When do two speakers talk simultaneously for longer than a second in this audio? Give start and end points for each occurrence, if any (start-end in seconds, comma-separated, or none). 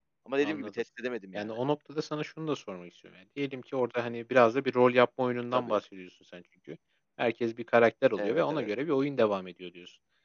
none